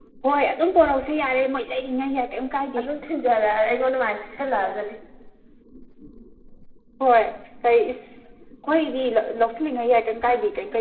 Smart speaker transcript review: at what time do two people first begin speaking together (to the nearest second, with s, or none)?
none